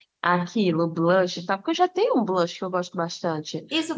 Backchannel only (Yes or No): No